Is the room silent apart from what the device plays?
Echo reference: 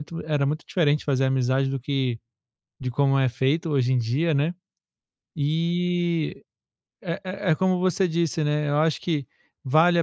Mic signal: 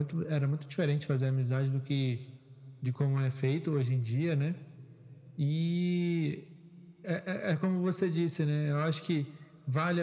Yes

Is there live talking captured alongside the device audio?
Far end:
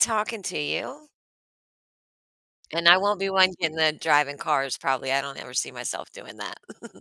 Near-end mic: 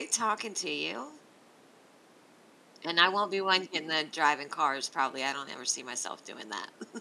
No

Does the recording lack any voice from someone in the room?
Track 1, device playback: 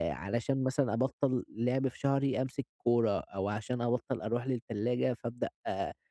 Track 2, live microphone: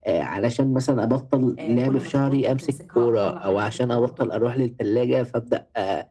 No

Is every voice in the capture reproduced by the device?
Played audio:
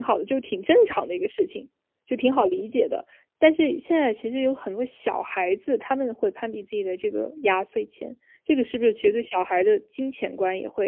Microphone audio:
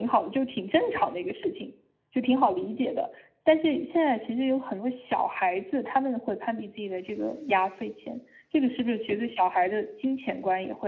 Yes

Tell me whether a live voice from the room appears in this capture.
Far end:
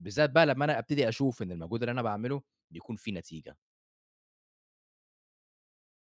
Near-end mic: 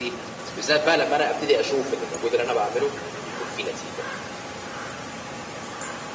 No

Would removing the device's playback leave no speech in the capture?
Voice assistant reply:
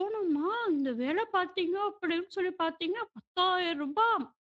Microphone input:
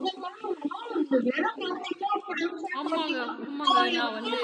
No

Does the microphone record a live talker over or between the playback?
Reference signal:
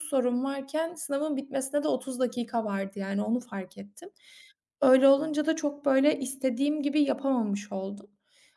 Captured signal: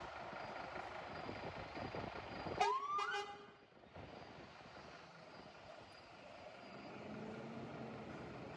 No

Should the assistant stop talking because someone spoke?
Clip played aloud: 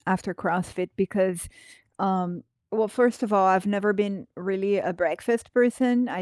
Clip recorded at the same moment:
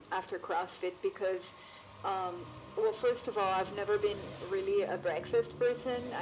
No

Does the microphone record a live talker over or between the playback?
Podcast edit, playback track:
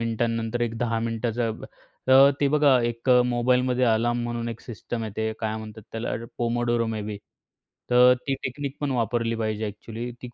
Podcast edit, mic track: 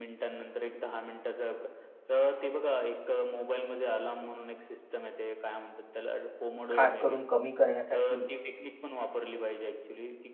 Yes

